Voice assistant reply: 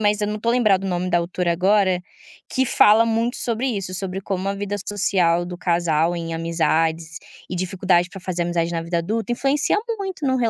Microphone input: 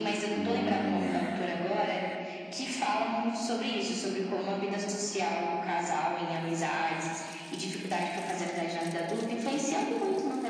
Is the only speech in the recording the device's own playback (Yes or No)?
No